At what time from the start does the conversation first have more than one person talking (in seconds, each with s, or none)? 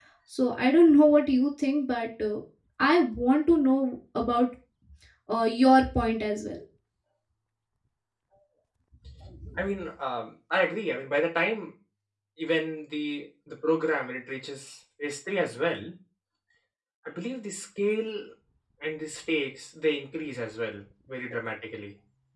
none